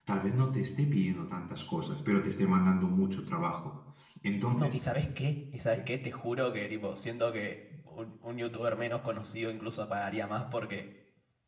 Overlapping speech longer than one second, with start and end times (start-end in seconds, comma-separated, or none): none